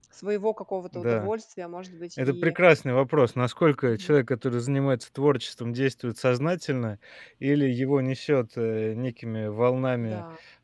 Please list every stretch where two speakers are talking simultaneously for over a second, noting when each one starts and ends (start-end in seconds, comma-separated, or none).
none